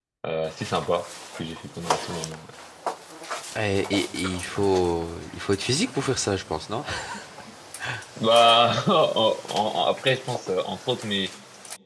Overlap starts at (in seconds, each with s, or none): none